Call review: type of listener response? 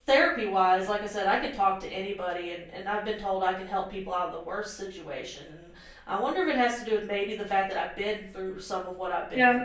taking over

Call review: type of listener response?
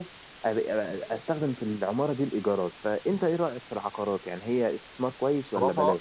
taking over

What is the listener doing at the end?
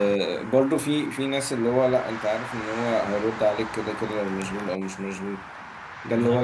listening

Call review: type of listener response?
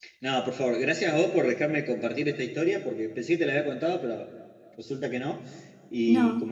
listening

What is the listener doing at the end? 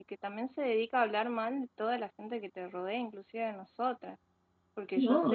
taking over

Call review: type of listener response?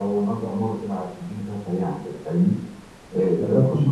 taking over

